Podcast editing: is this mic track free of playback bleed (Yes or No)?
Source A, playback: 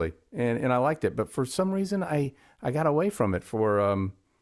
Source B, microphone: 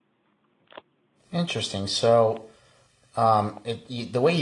Yes